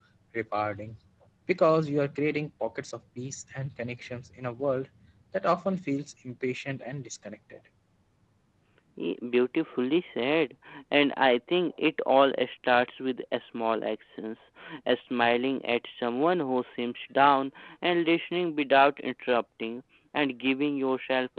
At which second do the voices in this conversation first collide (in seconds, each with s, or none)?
none